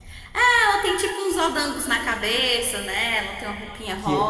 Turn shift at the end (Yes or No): Yes